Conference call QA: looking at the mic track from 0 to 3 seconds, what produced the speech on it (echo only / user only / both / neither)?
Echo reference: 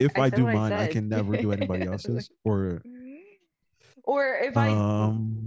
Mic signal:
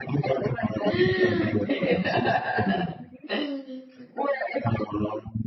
both